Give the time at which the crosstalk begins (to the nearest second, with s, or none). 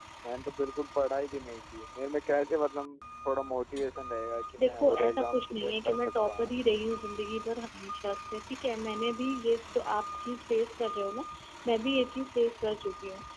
5 s